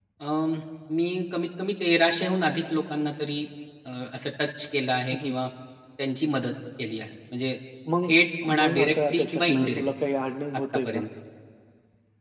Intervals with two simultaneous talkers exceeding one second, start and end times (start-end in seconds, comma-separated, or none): 8.6-9.8